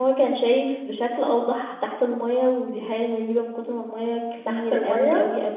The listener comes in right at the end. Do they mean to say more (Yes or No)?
No